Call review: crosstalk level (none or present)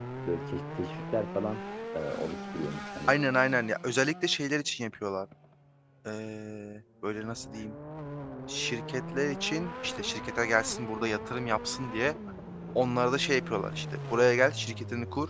none